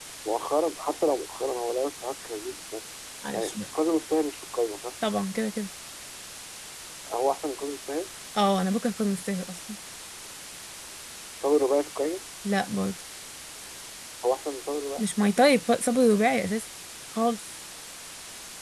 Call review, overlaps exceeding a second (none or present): none